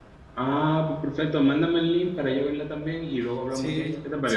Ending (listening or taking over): taking over